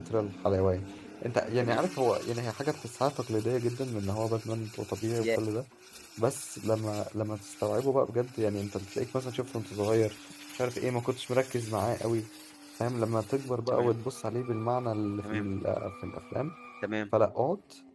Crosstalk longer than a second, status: none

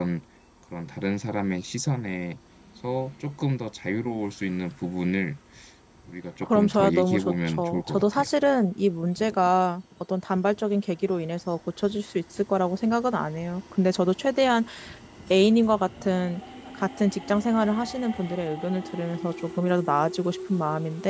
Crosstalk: present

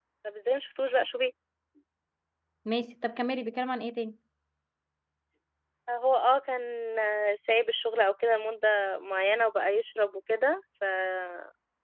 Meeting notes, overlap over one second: none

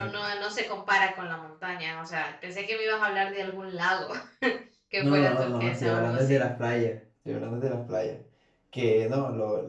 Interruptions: present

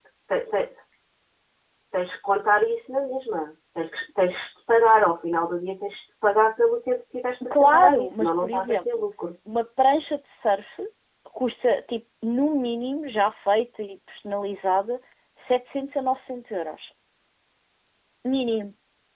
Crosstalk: present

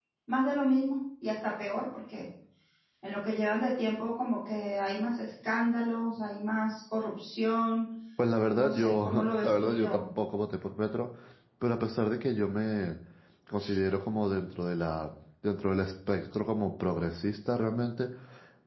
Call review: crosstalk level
present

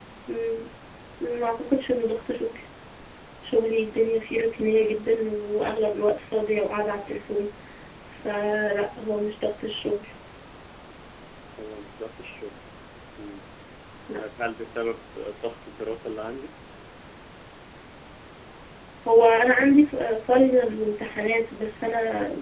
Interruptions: none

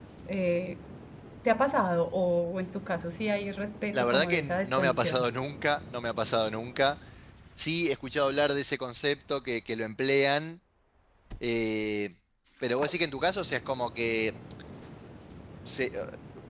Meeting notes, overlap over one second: present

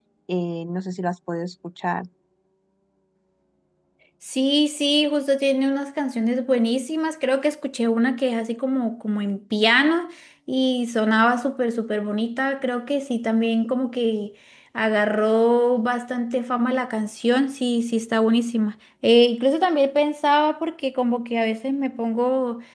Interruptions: none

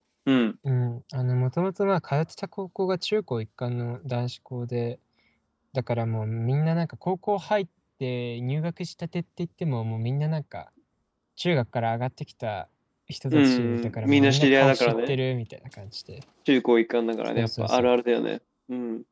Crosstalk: present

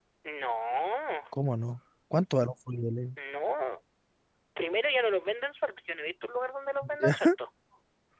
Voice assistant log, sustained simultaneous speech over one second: none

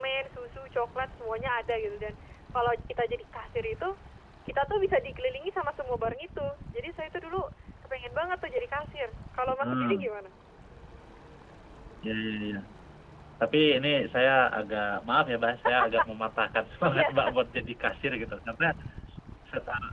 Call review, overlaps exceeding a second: none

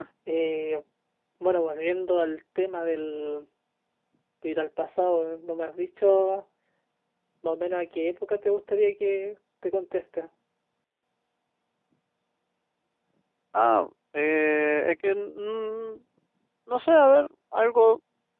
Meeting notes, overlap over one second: none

